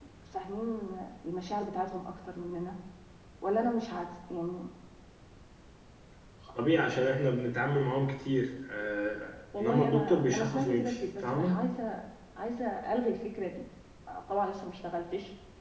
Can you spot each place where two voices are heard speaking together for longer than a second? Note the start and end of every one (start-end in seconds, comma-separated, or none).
9.6-11.6